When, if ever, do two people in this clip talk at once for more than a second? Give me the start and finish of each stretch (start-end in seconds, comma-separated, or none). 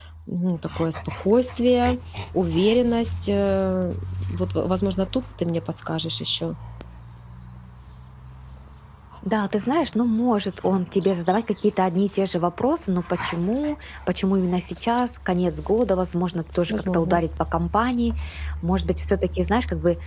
none